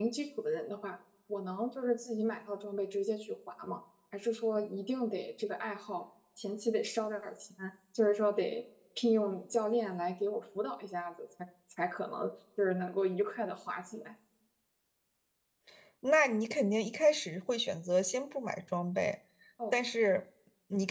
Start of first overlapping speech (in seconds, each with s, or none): none